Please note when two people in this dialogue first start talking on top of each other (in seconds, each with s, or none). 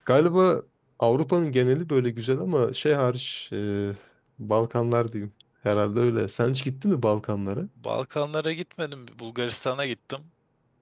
none